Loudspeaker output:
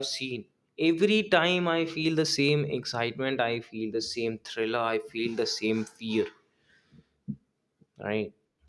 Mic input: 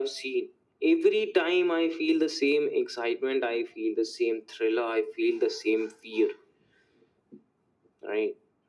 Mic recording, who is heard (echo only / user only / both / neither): echo only